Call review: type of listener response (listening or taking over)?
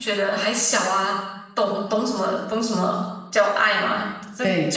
listening